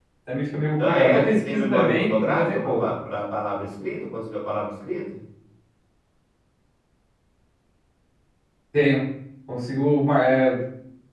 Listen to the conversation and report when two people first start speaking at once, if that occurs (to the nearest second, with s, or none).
1 s